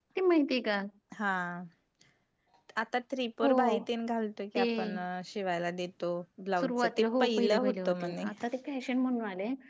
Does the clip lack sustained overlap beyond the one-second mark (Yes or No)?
No